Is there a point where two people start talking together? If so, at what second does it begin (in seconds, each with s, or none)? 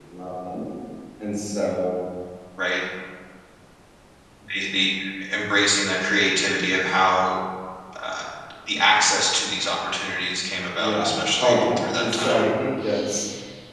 10.8 s